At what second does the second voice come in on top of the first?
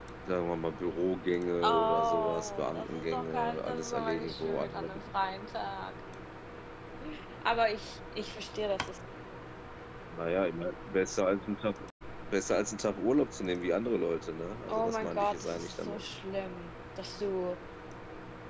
2 s

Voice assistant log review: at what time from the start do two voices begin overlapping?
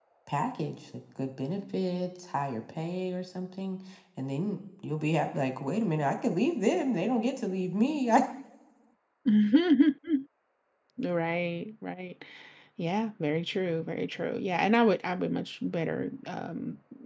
none

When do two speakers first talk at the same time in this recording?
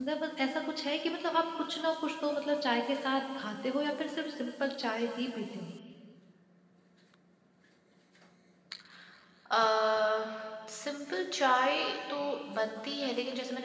none

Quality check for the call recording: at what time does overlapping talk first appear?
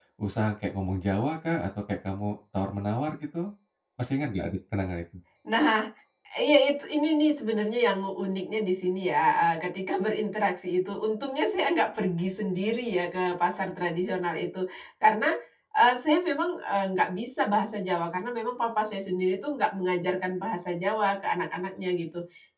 none

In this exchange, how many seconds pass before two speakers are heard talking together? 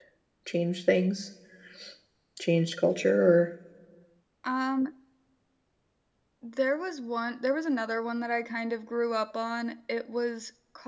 none

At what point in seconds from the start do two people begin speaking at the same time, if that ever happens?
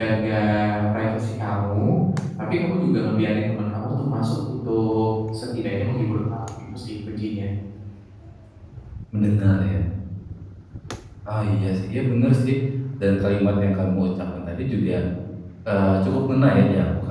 none

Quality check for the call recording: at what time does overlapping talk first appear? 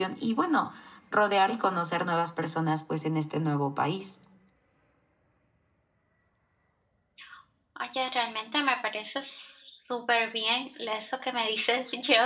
none

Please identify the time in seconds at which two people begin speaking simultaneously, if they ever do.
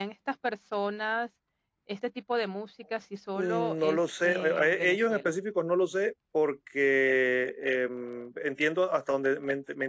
3 s

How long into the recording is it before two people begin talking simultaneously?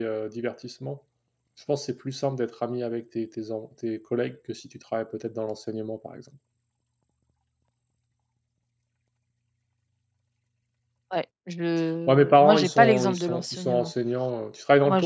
12 s

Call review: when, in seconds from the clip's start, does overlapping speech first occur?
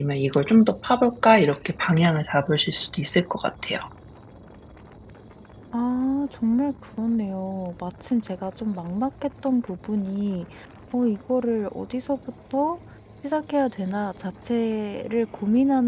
none

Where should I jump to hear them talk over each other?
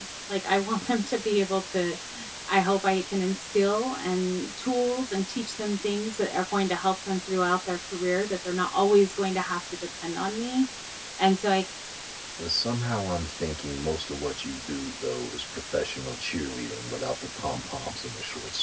none

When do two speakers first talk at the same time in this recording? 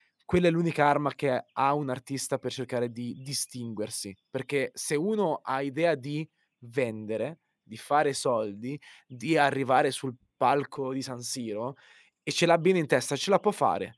none

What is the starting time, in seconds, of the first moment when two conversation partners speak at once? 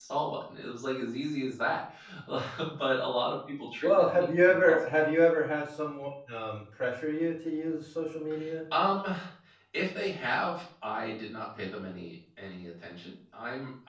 4 s

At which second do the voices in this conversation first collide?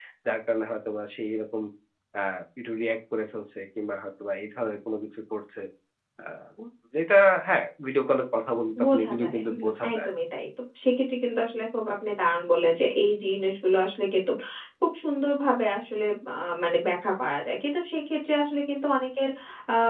9 s

